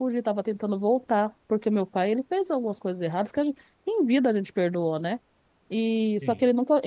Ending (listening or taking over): listening